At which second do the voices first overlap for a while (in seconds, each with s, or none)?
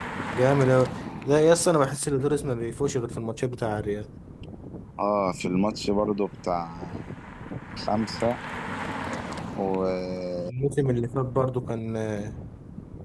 none